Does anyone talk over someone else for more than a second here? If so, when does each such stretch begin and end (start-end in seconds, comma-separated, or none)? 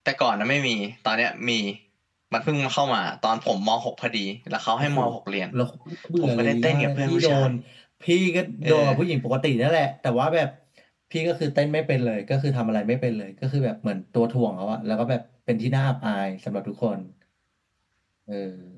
6.2-7.5